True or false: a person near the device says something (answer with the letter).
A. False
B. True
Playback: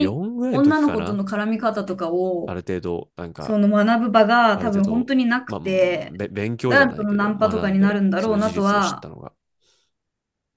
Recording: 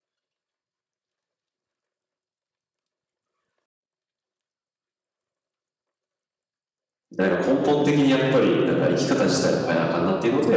B